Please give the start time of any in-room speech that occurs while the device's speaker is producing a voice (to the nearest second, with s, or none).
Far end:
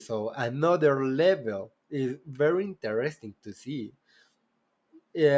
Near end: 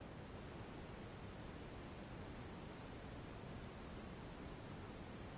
none